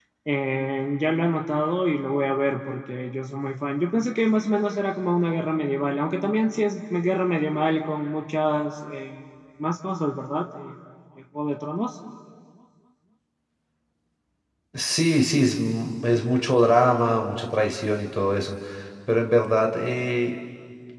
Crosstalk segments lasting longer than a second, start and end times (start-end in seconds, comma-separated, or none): none